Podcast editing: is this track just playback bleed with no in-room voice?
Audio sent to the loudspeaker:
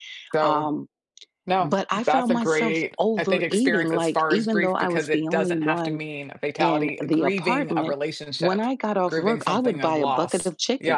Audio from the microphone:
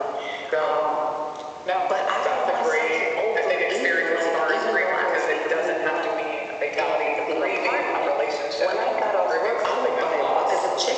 Yes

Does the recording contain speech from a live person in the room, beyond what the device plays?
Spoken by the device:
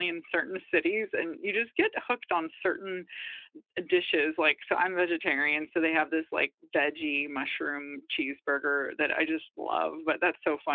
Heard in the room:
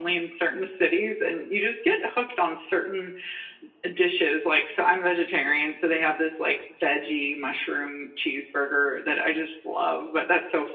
No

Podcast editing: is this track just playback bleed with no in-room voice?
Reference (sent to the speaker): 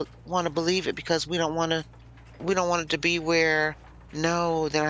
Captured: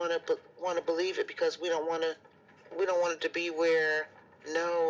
Yes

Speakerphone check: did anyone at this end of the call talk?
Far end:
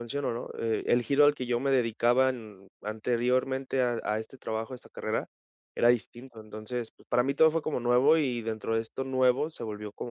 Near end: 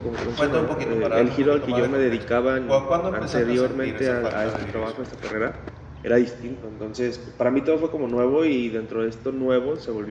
Yes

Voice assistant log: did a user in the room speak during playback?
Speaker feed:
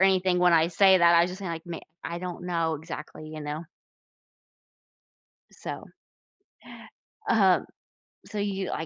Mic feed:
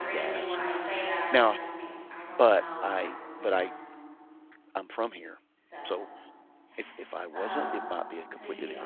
Yes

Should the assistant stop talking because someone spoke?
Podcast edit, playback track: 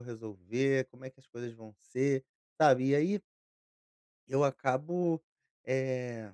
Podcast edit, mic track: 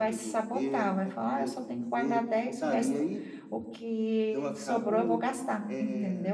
Yes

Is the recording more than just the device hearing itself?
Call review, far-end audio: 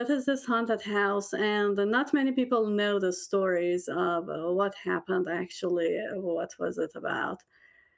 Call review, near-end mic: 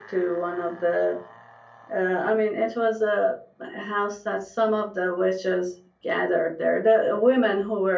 Yes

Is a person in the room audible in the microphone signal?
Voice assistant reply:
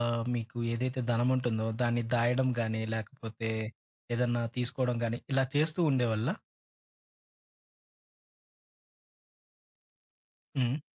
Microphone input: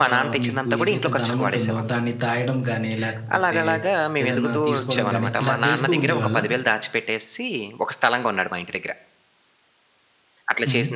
Yes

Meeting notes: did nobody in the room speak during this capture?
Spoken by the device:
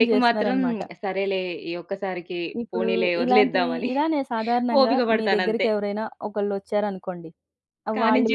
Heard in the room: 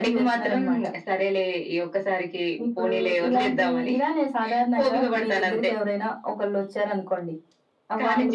Yes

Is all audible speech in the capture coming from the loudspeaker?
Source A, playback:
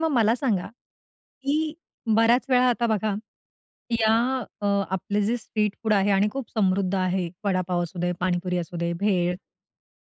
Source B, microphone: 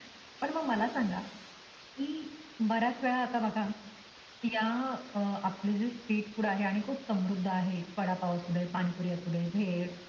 Yes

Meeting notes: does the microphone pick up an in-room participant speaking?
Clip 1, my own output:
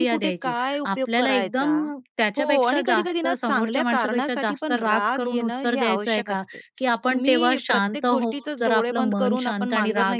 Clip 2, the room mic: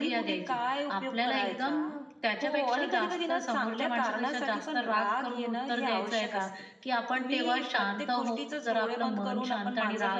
No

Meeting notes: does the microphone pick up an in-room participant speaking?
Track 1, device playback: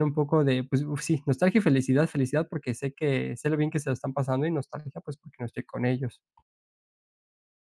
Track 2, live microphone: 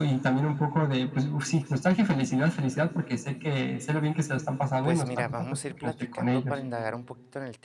Yes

